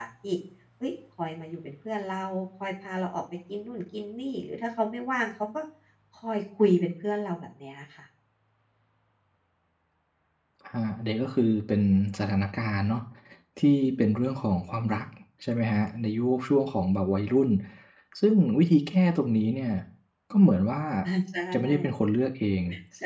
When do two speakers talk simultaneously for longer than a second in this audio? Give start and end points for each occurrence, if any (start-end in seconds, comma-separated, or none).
none